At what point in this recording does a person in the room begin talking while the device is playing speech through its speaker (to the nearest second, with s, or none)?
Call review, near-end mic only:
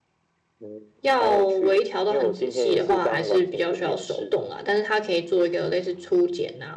1 s